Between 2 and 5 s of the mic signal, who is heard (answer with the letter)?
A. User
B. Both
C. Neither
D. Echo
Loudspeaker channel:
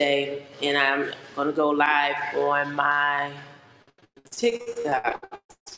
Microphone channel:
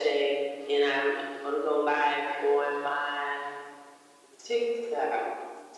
D